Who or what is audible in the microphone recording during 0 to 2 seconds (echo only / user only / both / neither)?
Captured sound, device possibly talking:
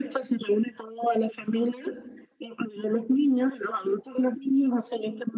echo only